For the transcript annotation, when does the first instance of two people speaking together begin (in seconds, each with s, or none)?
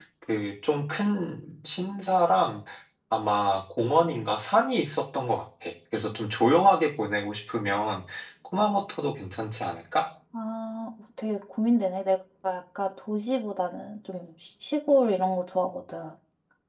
none